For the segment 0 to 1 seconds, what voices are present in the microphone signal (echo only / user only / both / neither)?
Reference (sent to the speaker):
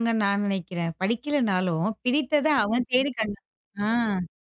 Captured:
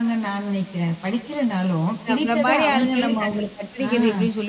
echo only